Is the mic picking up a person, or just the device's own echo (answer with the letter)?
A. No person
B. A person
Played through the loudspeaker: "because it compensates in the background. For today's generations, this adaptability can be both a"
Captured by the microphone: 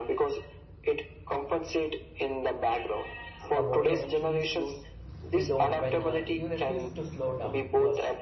B